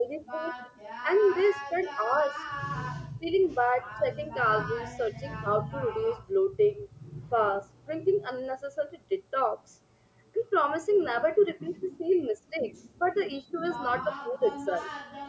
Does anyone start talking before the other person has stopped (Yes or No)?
Yes